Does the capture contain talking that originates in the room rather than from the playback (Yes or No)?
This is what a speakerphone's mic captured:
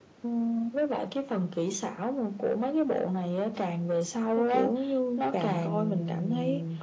Yes